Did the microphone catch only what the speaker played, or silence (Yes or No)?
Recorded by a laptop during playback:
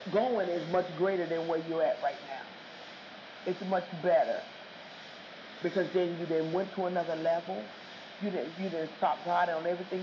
Yes